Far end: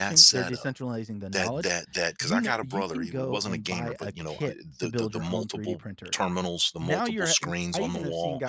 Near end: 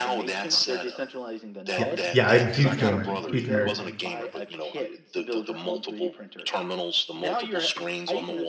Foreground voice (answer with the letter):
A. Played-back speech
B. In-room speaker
B